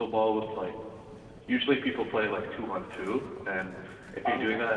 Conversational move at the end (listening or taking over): listening